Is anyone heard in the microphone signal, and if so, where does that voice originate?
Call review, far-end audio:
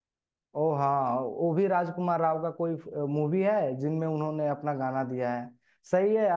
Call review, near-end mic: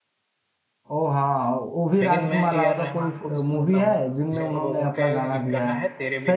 both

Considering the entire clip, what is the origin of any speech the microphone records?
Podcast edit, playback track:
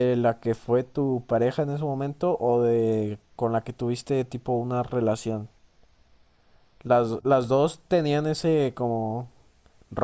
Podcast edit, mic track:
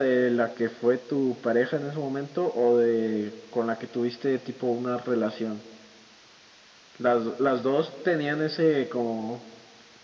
echo only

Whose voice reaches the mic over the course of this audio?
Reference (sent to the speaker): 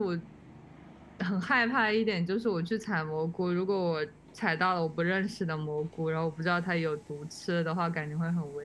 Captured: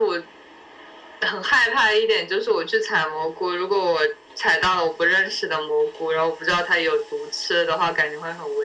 echo only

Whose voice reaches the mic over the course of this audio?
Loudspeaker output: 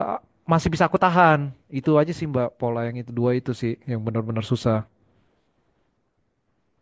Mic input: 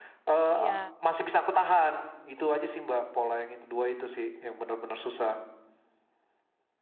both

